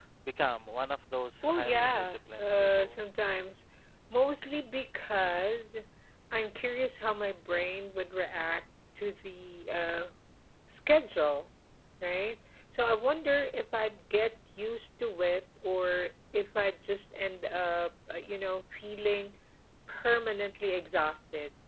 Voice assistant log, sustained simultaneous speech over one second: present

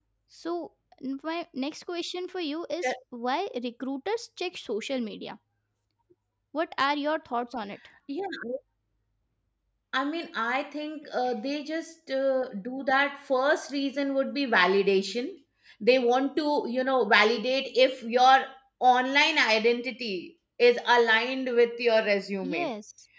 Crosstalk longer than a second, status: none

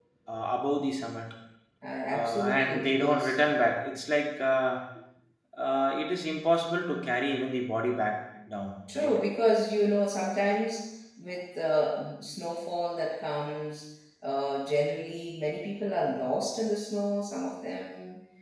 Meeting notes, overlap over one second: present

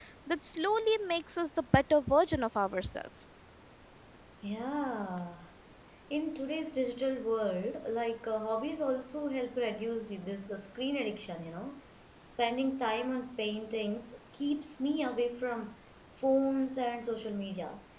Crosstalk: none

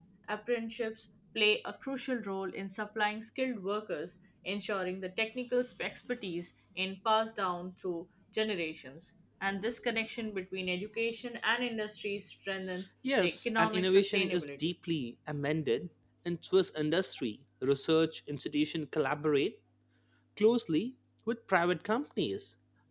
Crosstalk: present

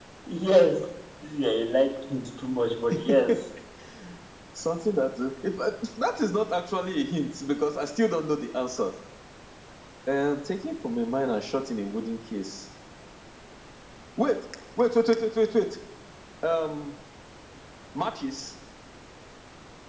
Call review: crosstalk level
none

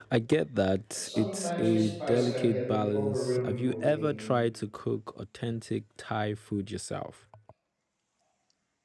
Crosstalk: present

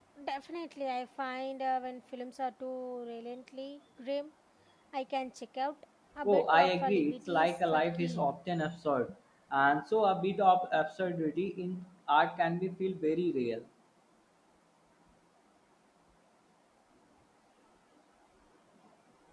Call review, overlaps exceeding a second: present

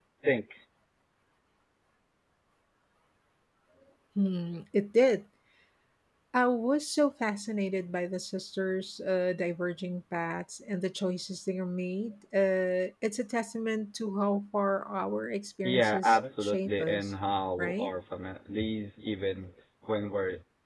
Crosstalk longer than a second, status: present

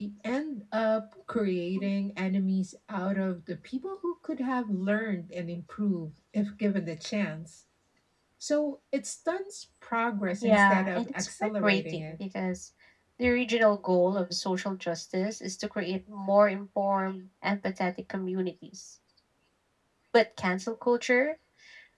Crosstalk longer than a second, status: present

